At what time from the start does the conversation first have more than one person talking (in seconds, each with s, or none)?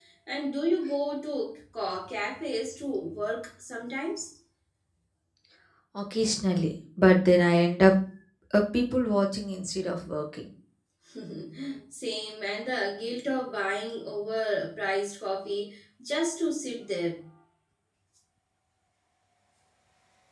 none